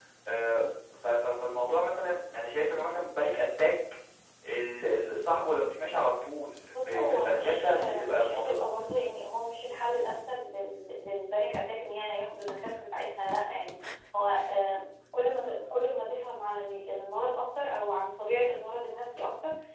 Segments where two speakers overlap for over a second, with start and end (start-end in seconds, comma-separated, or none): 6.7-8.6